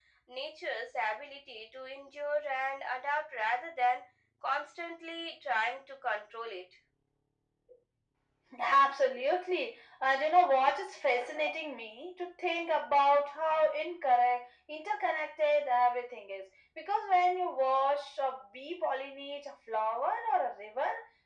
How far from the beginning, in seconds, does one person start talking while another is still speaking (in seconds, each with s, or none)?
none